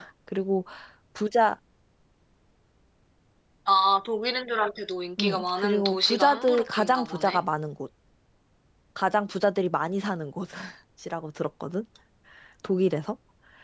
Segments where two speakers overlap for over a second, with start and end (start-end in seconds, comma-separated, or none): 5.2-7.4